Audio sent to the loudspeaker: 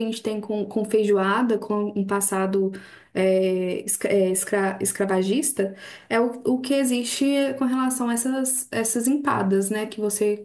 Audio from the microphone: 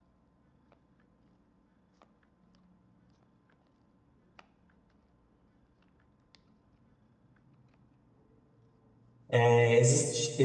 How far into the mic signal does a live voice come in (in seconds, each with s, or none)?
9.3 s